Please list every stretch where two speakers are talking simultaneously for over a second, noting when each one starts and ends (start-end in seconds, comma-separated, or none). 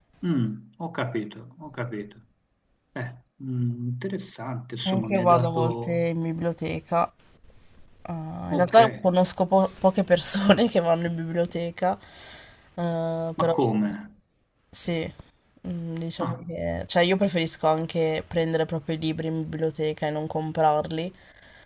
4.8-6.1